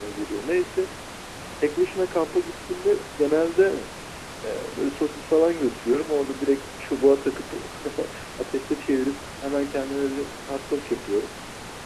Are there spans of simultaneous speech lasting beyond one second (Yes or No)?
No